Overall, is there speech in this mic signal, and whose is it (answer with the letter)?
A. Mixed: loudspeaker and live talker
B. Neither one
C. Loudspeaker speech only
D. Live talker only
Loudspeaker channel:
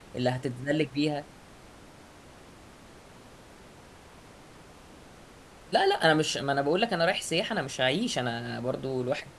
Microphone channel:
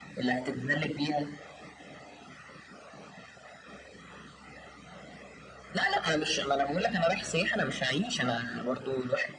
C